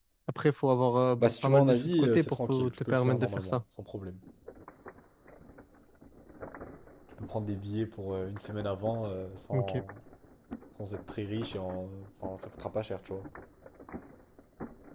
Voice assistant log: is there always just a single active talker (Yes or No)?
No